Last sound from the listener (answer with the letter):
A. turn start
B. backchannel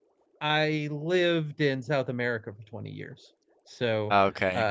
B